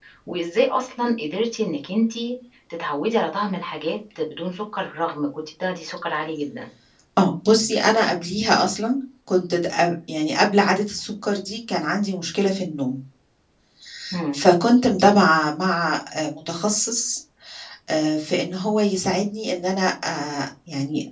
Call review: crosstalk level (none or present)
none